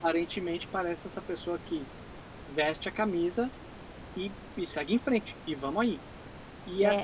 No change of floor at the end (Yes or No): Yes